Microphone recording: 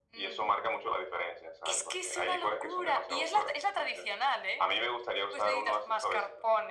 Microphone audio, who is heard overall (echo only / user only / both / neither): echo only